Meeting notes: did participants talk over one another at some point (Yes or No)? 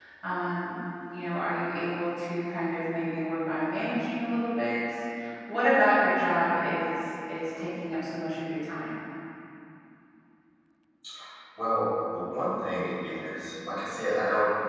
No